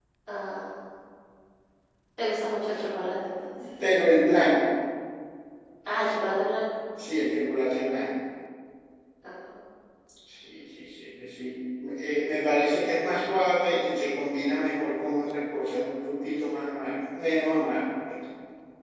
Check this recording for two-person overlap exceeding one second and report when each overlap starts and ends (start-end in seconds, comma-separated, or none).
none